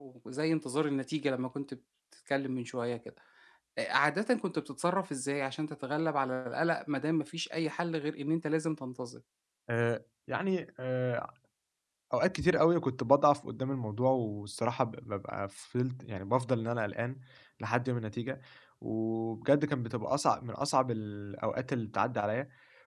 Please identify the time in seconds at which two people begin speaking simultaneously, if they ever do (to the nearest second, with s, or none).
none